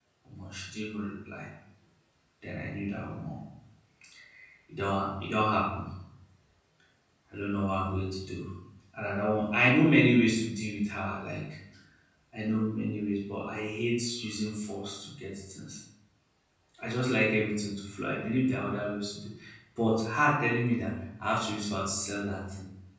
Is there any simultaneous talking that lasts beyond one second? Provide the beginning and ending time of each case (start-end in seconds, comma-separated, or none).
none